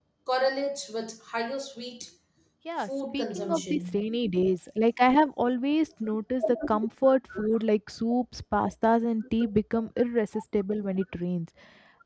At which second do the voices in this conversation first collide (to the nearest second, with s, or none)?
3 s